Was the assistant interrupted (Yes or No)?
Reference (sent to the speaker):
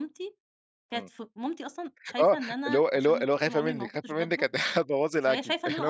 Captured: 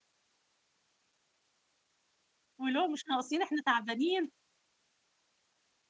Yes